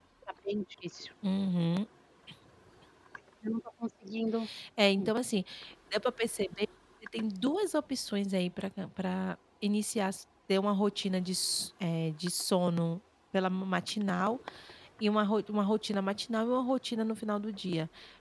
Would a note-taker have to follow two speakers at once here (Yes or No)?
No